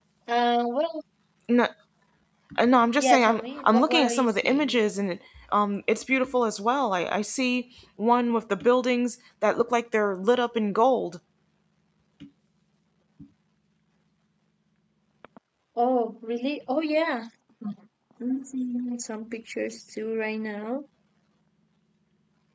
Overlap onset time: 3 s

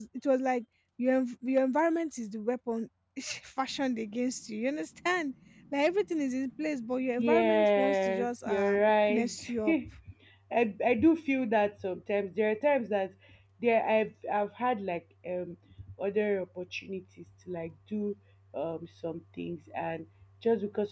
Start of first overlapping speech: 7 s

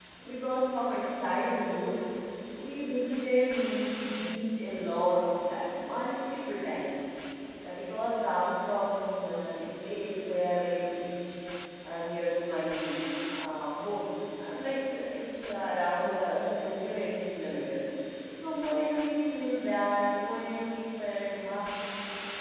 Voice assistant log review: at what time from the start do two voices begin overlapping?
none

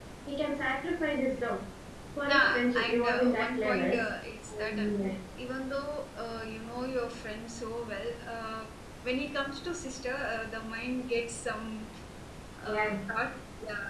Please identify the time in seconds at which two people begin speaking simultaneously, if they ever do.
2 s

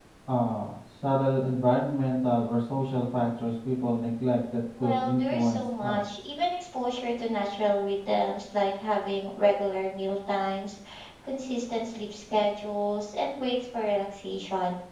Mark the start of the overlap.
5 s

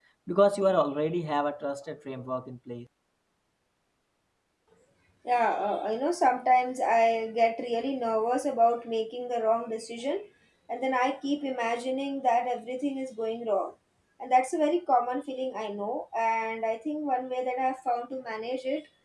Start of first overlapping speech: none

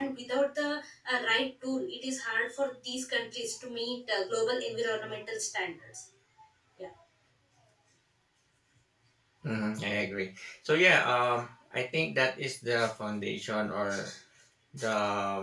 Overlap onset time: none

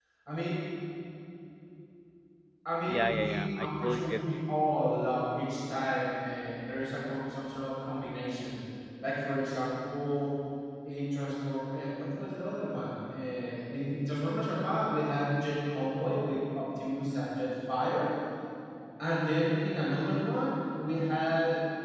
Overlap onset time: 3 s

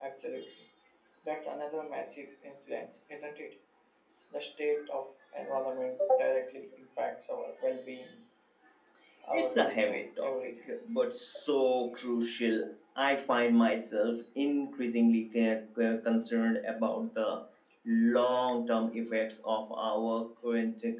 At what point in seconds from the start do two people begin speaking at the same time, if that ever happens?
9 s

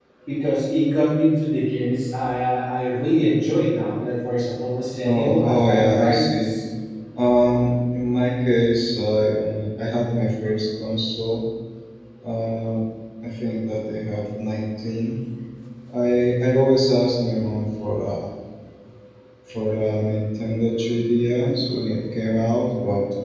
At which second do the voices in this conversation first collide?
5 s

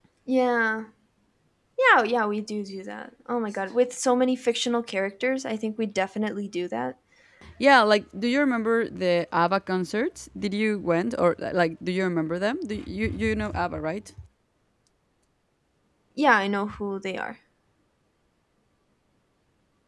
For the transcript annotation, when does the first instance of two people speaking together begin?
none

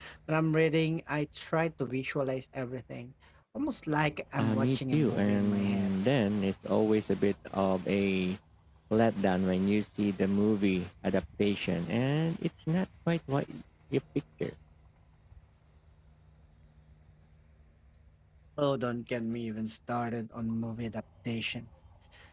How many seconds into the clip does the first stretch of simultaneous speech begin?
4 s

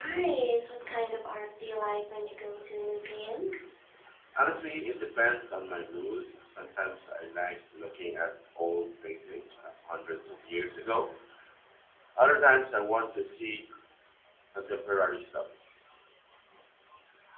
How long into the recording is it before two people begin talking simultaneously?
none

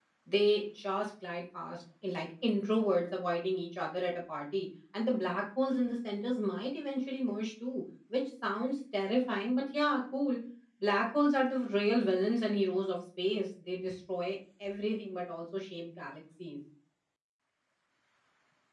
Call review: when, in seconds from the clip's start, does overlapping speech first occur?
none

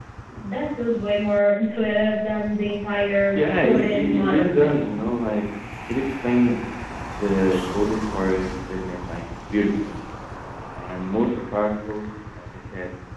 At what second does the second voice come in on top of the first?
4 s

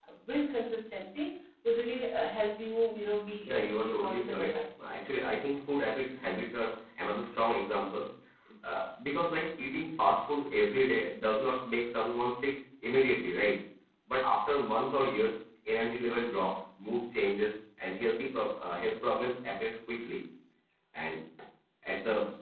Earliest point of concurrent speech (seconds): 3 s

